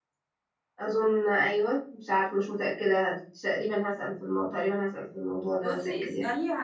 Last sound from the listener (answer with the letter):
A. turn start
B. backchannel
A